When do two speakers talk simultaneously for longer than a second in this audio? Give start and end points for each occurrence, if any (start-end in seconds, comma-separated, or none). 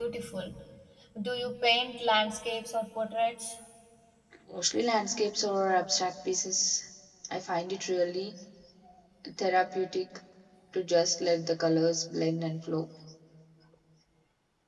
none